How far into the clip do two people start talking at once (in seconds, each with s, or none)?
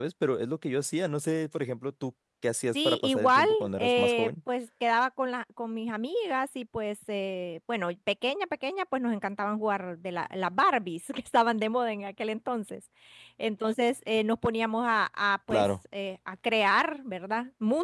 2.7 s